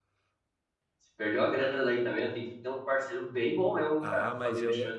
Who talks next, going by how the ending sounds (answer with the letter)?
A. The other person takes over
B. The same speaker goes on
A